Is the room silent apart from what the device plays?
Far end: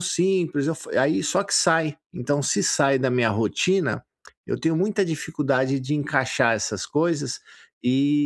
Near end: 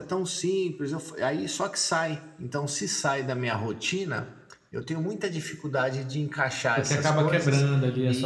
No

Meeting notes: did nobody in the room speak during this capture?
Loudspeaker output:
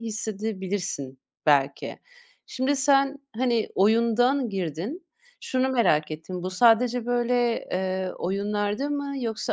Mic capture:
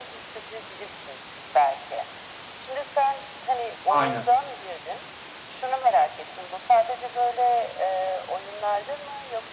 No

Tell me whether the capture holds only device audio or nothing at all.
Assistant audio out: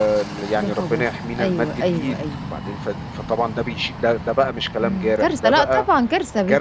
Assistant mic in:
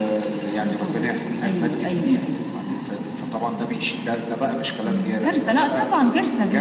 Yes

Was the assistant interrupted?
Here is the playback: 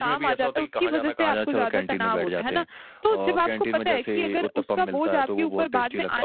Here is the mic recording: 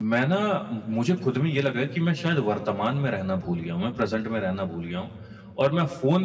Yes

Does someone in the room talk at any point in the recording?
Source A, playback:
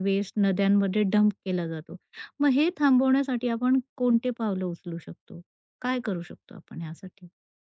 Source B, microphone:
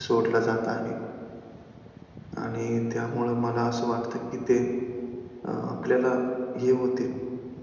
Yes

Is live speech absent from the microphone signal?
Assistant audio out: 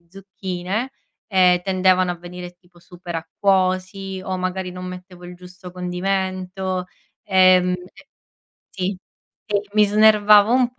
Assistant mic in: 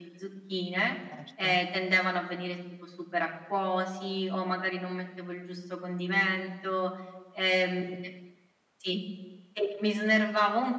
No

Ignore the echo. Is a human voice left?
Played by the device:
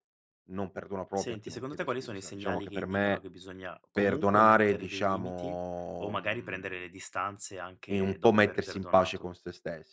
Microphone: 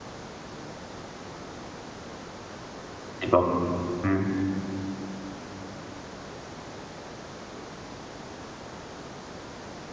Yes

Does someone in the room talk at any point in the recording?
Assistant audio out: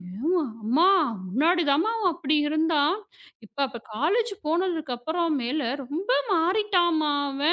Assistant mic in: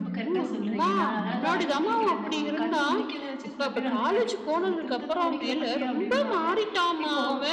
Yes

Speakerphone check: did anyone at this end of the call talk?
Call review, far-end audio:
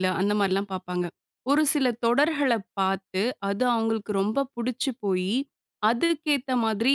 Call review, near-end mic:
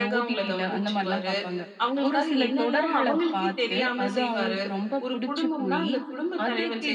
Yes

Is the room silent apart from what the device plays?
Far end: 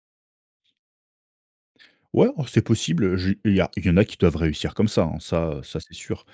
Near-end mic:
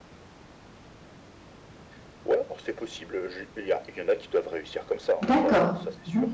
No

